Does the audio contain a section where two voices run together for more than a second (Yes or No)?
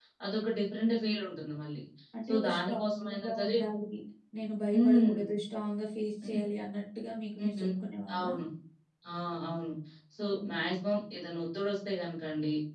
Yes